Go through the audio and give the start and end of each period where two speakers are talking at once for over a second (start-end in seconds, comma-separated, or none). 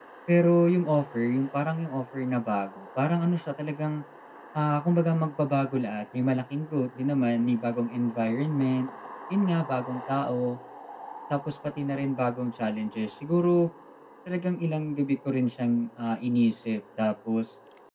none